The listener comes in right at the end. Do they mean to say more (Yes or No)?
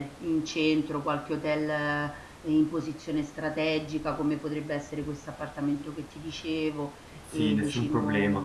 Yes